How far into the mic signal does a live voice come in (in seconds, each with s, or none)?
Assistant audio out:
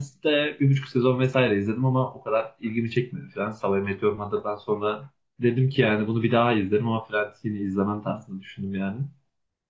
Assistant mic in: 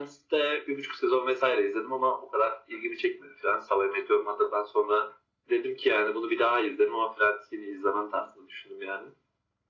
none